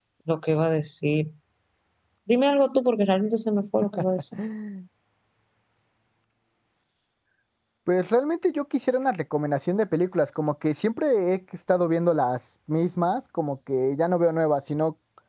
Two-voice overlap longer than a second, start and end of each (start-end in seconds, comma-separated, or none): none